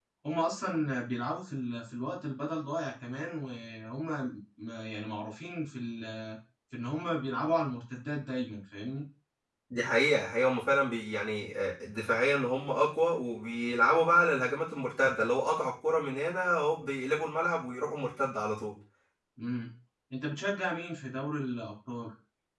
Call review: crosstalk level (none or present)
none